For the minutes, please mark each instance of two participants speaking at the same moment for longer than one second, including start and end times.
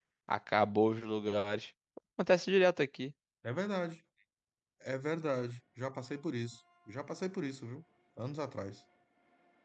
none

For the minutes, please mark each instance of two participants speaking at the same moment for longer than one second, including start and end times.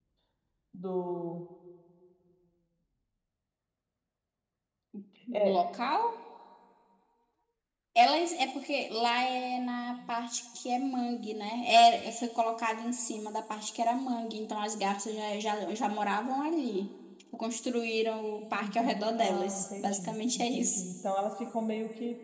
18.5-20.8

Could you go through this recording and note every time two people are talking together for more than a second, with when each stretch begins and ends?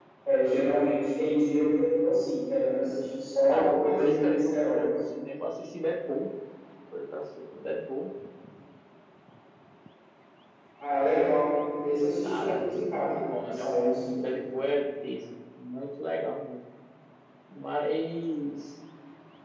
3.5-5.0, 12.2-14.3

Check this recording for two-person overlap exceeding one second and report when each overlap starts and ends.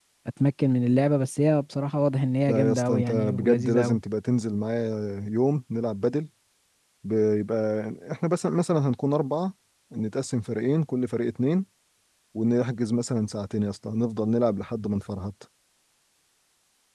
2.5-4.0

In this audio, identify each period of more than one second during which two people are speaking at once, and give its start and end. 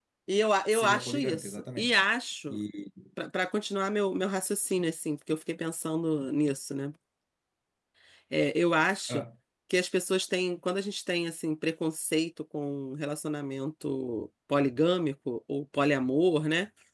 0.7-2.0

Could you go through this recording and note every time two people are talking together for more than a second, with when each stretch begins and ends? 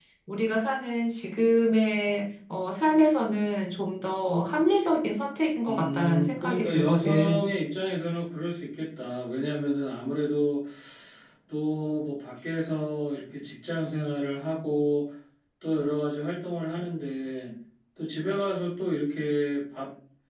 5.7-7.5

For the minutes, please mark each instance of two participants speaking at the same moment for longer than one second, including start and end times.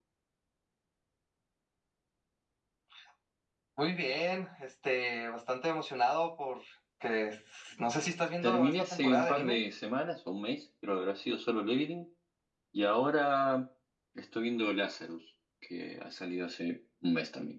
8.4-9.6

